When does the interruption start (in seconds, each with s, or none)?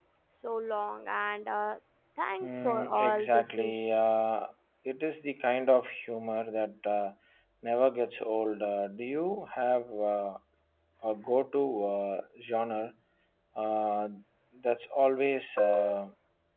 2.4 s